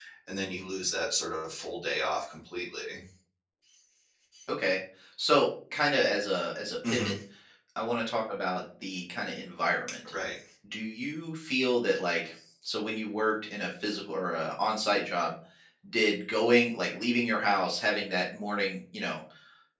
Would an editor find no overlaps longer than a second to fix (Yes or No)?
Yes